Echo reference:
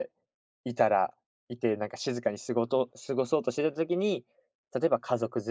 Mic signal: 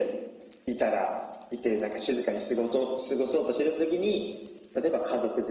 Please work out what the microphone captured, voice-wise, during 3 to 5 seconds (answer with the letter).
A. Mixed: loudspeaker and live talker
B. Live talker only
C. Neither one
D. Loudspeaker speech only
D